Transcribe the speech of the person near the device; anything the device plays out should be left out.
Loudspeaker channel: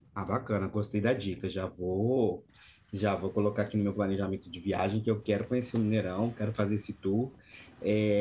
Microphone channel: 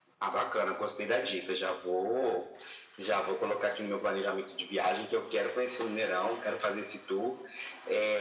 none

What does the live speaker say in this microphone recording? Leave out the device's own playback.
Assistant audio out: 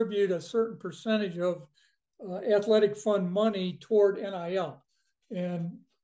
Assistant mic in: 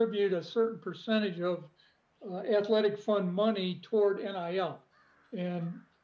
none

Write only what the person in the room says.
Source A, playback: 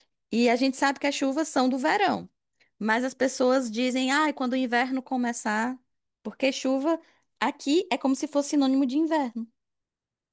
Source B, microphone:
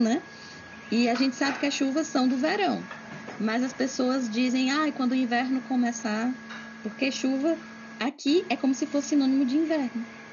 none

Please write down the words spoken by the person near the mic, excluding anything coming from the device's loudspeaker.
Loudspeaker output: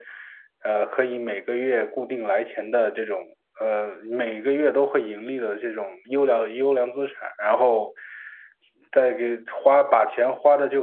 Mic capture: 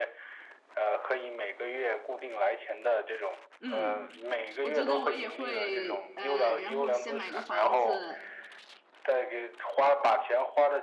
嗯，我觉得我也会，呃，然后先买个房子，

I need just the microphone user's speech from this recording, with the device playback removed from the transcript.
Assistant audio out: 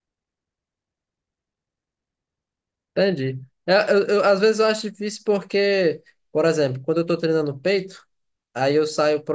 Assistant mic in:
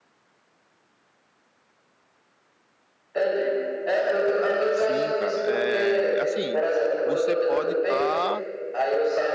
Sim, cara. É, assim, você pode estar

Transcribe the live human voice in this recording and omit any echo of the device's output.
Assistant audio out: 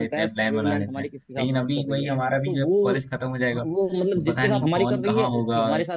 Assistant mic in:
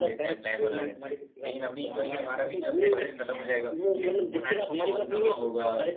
तो हमारे पे कोई इतना प्रेशर नहीं है और कुछ नहीं है, हम

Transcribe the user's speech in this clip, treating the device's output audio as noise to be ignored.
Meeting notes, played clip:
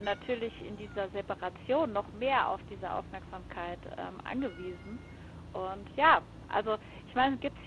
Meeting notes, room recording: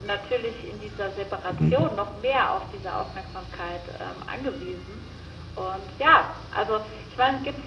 Mhm.

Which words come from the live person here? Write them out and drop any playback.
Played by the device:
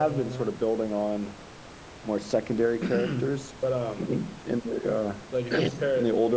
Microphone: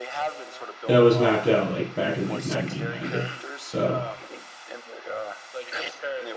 that was mapped out like back in like 1990. So

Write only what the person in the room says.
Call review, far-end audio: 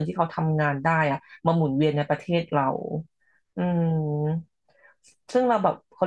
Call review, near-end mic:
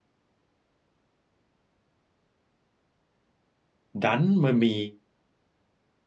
ดันมันมี

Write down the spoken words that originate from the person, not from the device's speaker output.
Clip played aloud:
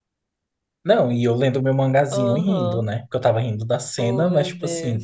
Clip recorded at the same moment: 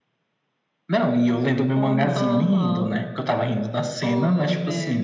Aham.

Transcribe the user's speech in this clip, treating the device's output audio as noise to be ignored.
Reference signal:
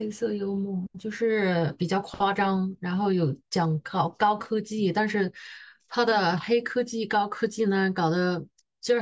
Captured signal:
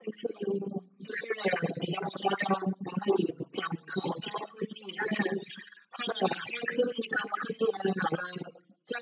none

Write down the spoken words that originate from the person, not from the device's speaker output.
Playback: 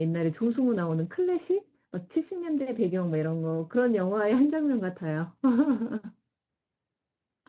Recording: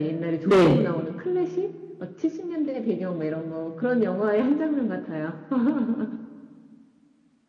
네.

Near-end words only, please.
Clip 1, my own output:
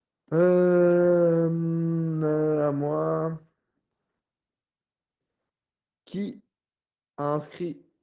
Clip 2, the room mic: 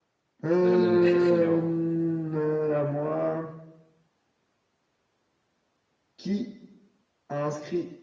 Là, j'en ai une très très dure. hein.

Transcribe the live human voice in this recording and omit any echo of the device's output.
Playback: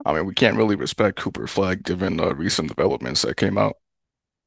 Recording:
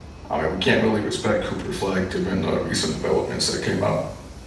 none

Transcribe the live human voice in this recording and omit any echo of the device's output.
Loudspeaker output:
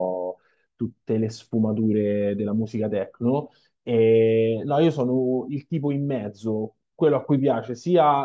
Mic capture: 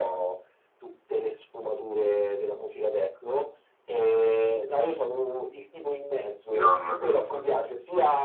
No, non la conosco.

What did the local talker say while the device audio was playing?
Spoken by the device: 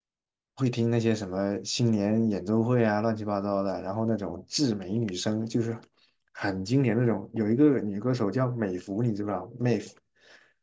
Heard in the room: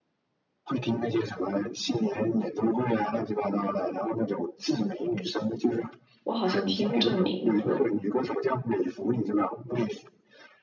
我好像听过这个名字。

